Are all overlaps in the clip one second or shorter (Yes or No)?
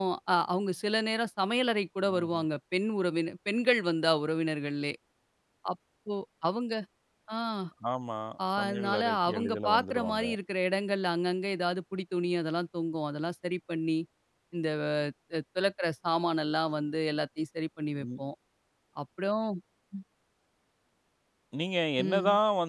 No